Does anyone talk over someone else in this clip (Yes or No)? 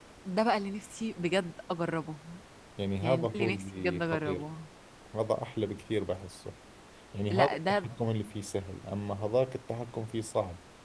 Yes